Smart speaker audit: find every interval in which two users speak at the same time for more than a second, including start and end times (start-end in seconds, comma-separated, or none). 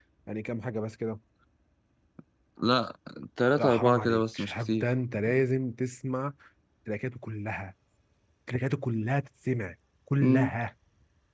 3.6-4.9